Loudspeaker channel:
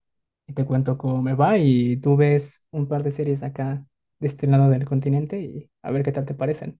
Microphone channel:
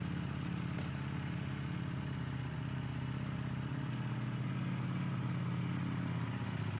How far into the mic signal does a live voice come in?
none

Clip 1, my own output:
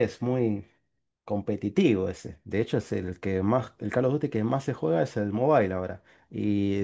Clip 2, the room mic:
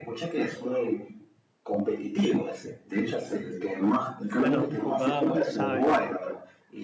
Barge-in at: 4.4 s

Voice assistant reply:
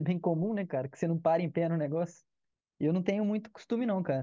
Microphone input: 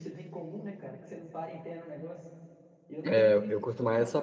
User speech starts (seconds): 3.1 s

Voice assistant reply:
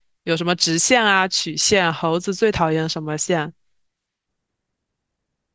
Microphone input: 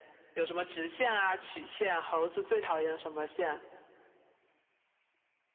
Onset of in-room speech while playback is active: none

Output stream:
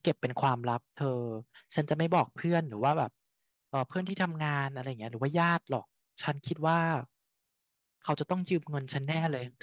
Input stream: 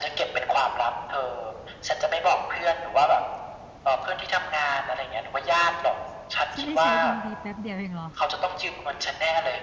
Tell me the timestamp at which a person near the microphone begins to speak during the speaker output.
6.5 s

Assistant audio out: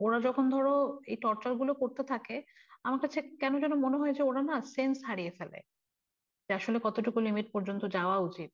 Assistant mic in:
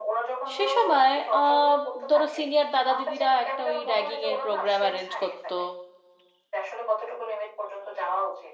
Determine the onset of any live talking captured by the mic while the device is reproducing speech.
0.6 s

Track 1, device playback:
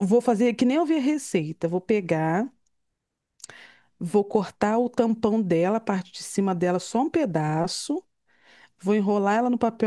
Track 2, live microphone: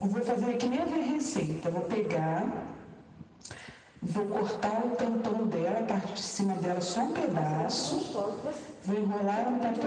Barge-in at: 7.3 s

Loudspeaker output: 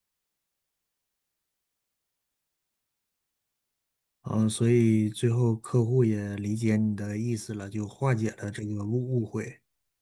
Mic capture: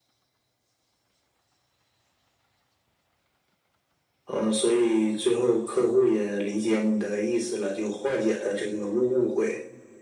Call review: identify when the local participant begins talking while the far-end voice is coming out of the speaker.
none

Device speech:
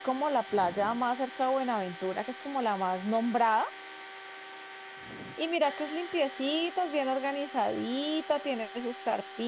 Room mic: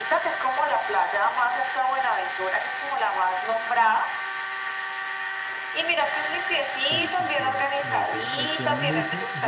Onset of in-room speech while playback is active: 6.8 s

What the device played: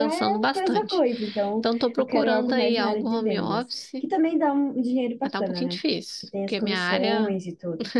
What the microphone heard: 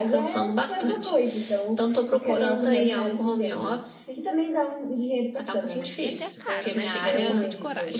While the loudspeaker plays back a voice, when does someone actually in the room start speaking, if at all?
6.0 s

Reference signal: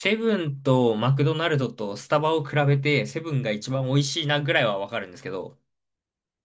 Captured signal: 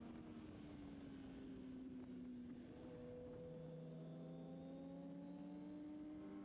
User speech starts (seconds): none

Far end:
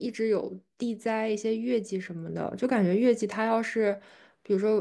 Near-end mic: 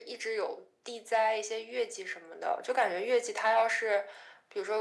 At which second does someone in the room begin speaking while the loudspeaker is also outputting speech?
none

